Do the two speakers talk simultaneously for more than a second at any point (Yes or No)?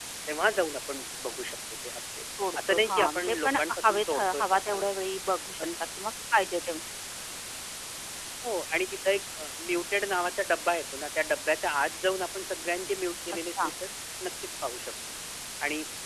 Yes